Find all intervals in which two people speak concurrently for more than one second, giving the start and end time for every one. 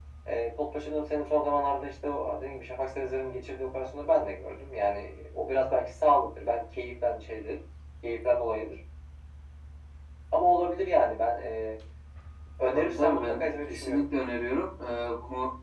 12.7-14.0

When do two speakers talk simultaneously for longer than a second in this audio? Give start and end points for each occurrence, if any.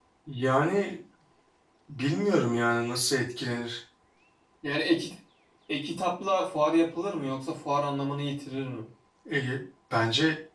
none

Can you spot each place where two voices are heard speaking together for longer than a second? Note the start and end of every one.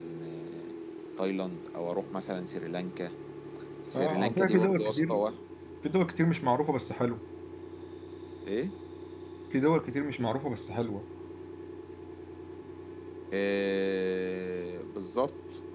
4.0-5.2

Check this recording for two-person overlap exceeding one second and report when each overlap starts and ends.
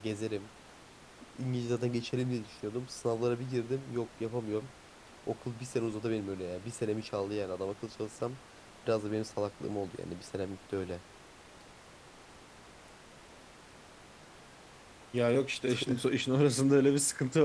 none

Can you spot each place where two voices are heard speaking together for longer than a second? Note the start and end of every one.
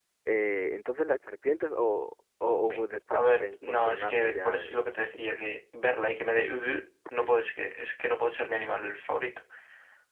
3.1-4.8

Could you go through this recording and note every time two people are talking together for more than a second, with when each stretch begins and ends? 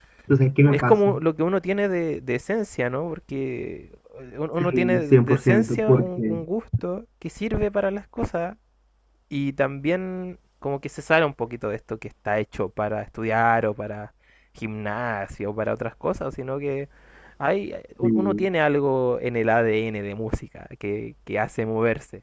4.6-6.4

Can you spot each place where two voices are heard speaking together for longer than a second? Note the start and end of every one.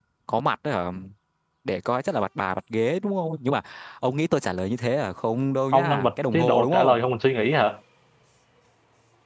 5.7-7.0

